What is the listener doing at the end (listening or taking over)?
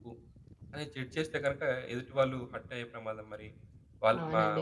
taking over